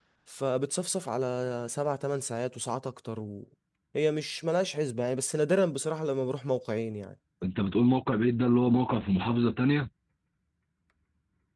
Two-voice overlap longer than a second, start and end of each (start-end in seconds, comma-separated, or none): none